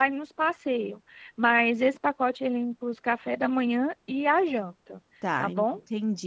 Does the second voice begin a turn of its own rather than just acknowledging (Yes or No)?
Yes